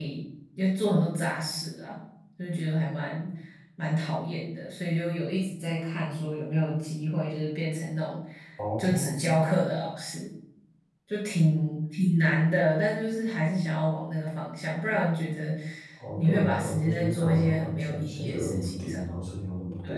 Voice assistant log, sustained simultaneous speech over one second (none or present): present